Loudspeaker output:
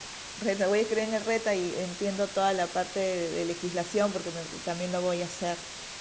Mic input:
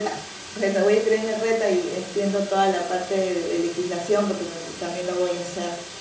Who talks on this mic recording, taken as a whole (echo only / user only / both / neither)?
echo only